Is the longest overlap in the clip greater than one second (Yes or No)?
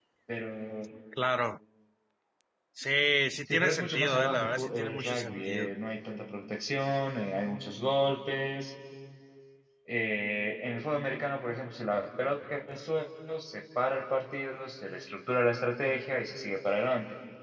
Yes